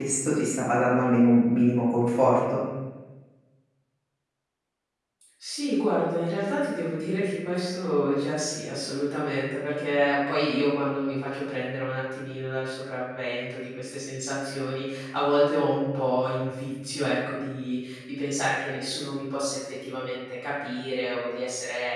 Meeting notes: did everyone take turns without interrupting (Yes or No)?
Yes